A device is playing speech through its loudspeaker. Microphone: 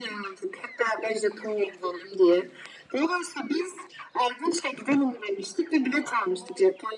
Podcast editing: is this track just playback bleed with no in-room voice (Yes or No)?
Yes